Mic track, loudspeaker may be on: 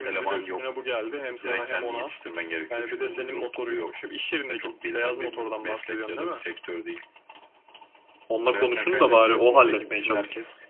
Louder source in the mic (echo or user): user